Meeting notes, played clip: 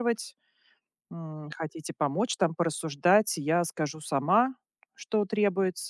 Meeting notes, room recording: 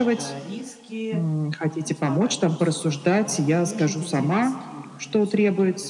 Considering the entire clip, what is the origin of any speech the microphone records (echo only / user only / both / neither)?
both